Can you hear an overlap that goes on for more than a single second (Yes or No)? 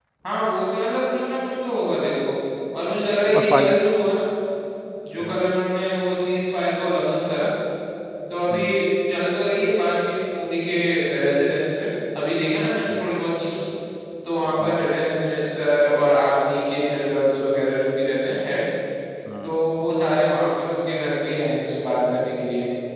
No